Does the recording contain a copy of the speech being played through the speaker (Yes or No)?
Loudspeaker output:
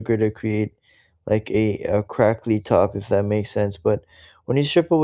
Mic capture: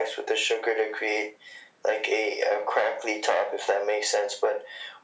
Yes